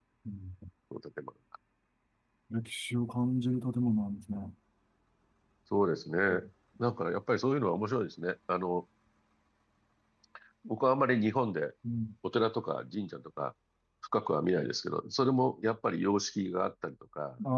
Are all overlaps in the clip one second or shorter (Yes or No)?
Yes